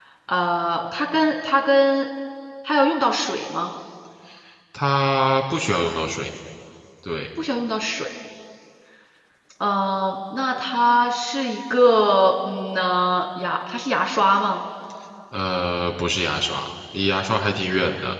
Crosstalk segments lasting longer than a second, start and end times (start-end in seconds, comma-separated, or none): none